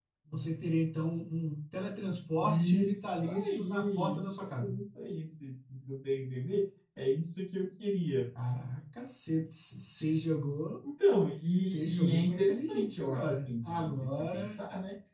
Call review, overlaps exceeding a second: present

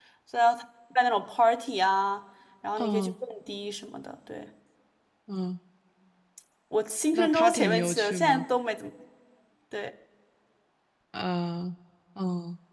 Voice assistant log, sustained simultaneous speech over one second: present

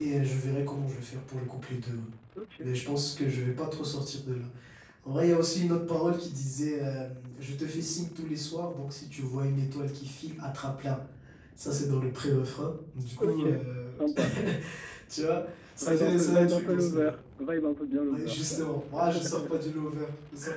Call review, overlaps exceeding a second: present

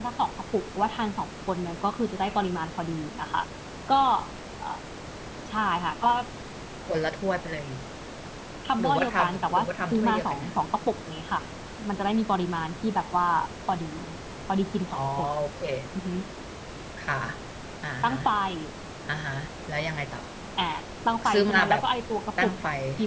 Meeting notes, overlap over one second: present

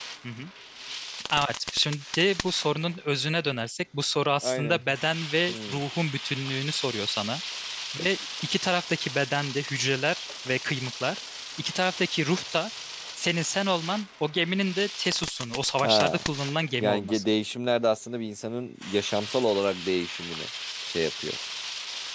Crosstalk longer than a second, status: none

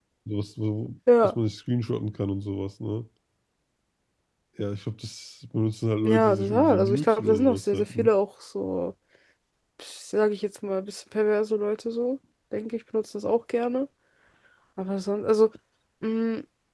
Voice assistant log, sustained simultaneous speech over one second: present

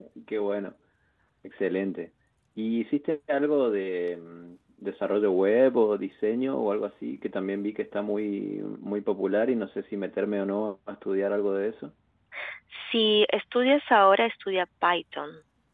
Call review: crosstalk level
none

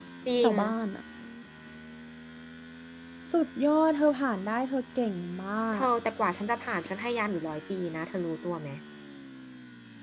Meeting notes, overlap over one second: none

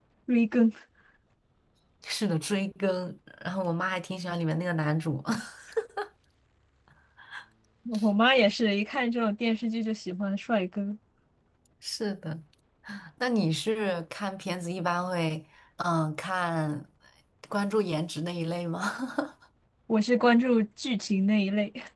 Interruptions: none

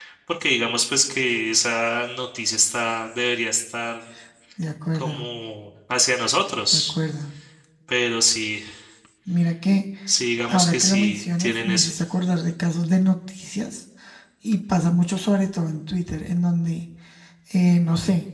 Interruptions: present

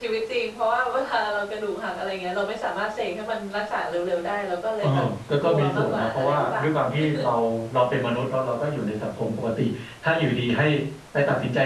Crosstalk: present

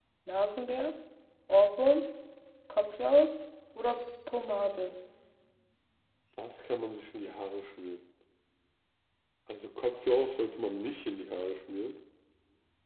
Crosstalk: none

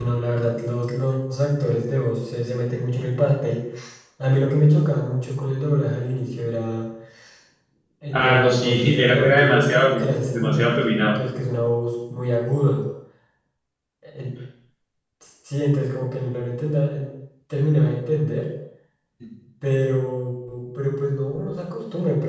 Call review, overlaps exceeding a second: present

